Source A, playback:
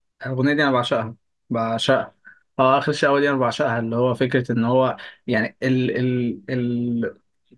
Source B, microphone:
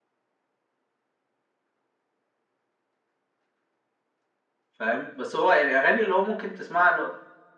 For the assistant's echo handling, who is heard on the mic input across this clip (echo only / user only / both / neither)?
user only